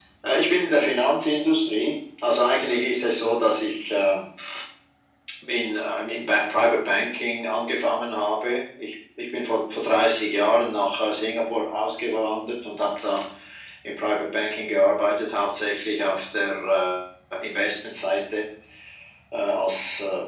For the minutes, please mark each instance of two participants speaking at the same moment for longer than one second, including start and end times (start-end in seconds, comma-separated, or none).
none